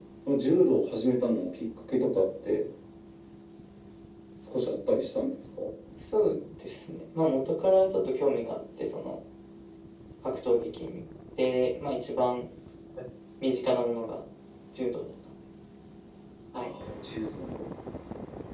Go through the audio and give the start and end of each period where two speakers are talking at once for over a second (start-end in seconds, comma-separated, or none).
none